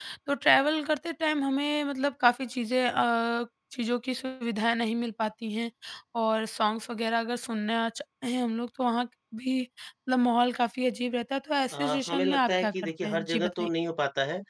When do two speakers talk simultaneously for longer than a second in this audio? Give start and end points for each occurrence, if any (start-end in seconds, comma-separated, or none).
11.7-13.7